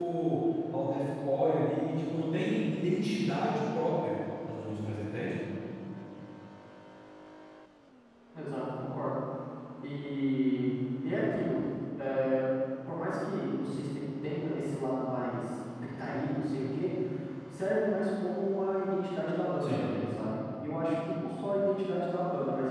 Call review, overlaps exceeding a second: none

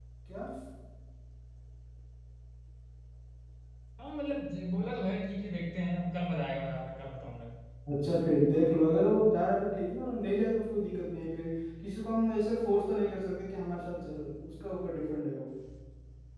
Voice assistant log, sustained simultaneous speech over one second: none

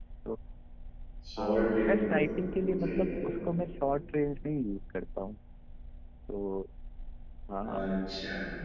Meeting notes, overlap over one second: present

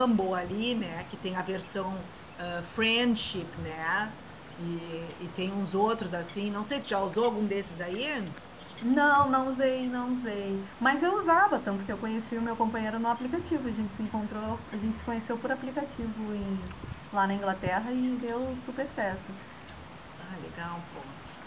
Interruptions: none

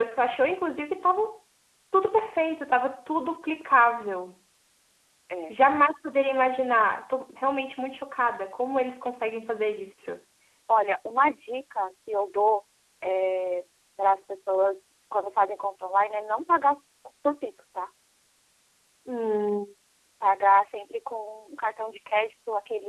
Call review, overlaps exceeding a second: none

